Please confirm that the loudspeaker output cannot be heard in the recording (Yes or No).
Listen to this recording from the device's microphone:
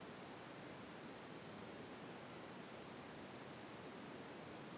Yes